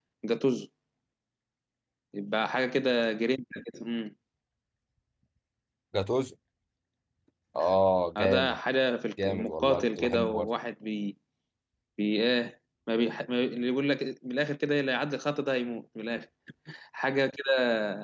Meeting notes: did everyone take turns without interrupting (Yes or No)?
No